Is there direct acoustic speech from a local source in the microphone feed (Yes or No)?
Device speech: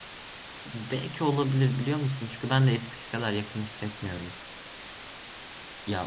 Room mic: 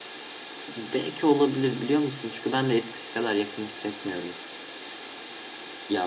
No